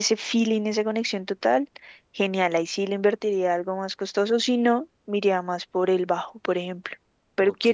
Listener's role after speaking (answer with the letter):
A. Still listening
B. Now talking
A